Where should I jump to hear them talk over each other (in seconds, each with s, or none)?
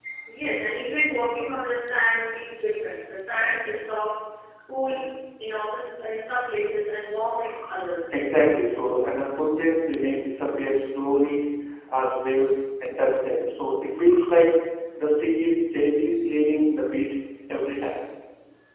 none